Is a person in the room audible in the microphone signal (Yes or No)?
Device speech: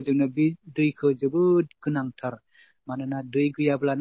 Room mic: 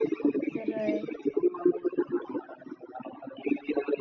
Yes